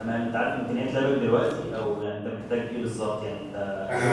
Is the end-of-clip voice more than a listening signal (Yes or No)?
Yes